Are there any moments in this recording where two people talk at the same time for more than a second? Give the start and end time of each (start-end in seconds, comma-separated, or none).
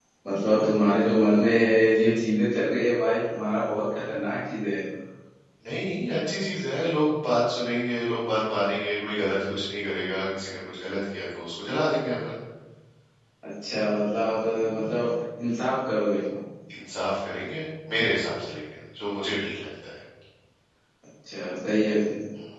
none